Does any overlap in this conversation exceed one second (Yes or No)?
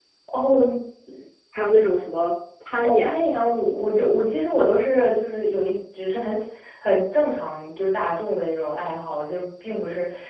No